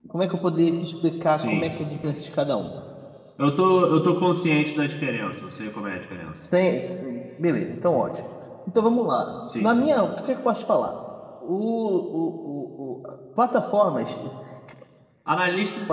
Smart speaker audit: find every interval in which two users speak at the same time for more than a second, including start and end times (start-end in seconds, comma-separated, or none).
none